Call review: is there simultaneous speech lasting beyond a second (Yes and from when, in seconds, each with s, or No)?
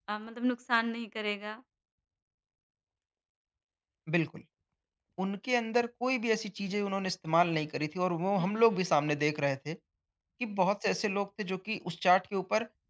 No